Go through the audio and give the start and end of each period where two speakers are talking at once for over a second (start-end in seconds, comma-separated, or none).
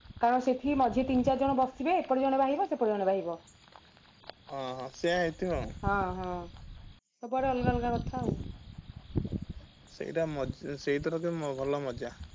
none